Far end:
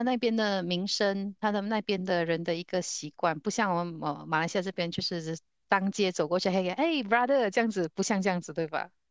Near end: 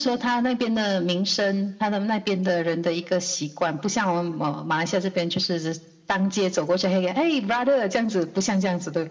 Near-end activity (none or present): none